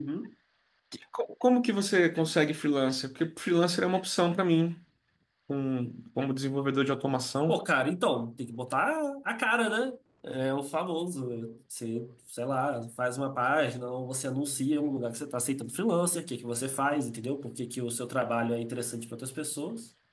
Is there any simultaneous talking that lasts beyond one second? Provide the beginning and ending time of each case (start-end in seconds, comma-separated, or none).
none